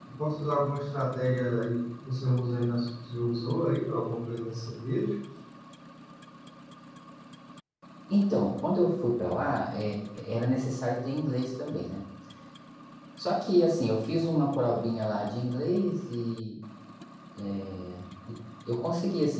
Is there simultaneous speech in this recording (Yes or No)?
No